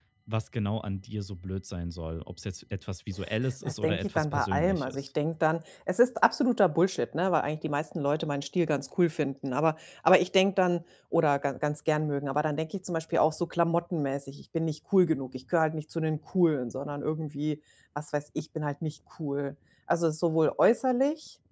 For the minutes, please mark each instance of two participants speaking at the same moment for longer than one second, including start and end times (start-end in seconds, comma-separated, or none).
3.6-5.1